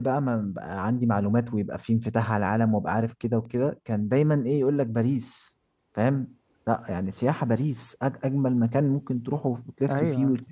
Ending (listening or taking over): taking over